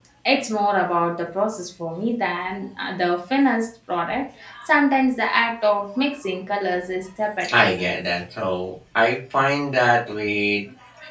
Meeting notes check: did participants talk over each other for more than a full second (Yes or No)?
No